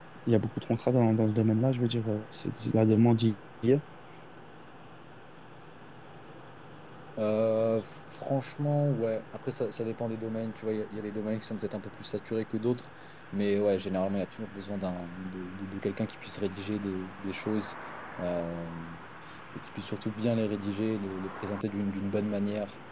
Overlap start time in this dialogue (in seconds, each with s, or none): none